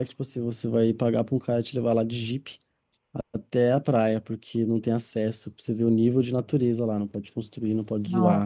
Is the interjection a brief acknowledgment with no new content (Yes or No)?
Yes